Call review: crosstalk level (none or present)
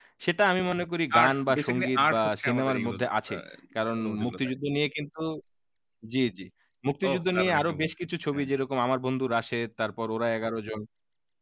present